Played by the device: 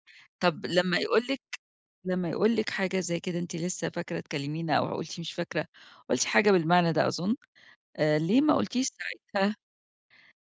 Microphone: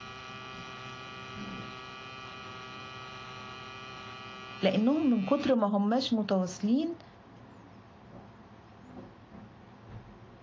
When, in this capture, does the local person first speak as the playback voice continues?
4.6 s

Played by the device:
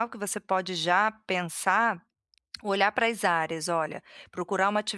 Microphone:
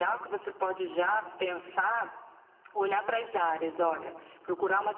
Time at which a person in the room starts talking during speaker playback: none

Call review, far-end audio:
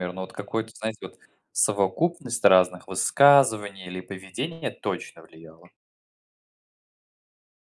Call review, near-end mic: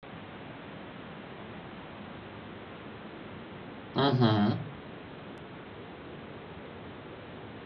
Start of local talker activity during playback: 4.0 s

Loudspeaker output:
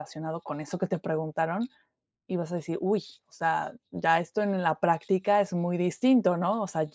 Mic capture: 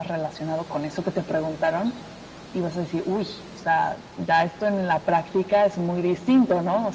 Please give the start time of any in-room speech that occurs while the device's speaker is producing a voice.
none

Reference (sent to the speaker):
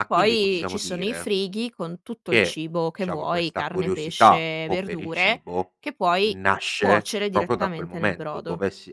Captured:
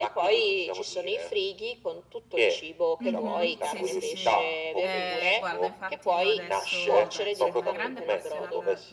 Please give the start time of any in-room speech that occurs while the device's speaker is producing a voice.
3.0 s

